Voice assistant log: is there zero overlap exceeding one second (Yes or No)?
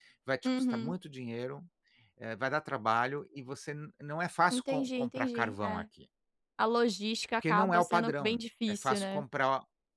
No